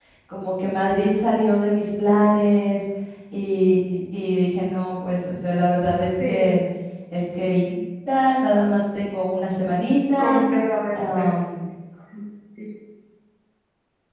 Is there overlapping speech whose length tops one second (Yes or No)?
No